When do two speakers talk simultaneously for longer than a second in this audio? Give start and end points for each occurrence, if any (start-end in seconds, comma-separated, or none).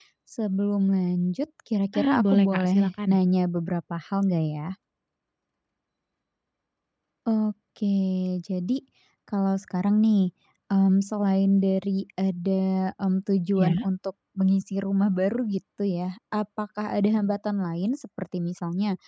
1.9-3.2